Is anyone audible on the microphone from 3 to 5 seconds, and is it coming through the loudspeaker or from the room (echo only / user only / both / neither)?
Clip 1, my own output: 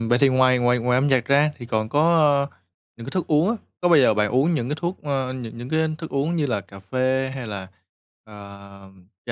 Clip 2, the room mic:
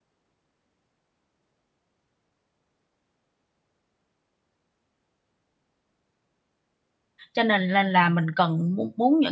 neither